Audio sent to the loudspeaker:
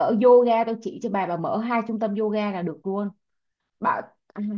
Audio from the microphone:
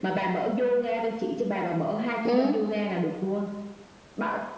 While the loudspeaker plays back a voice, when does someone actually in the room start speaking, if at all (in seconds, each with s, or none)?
2.2 s